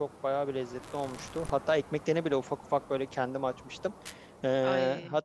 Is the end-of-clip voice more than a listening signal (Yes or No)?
No